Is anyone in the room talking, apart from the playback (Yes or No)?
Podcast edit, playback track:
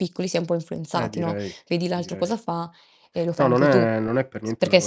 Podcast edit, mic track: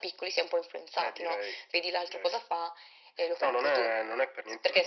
No